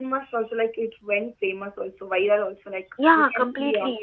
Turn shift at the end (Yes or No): Yes